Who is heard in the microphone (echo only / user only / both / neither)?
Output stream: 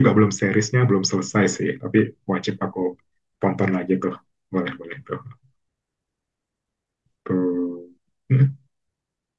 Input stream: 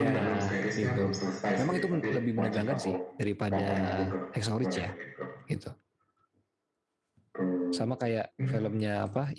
both